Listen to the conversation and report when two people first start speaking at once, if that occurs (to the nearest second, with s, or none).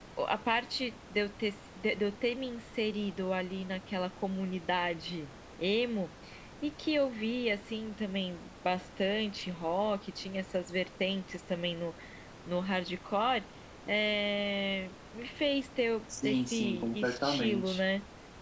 16 s